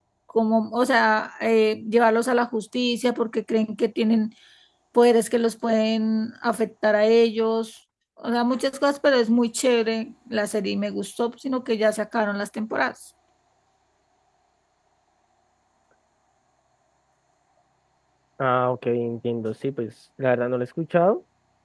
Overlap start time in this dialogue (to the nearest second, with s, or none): none